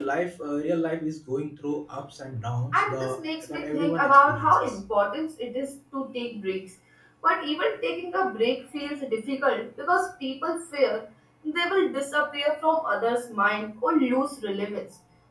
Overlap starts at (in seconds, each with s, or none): 2.7 s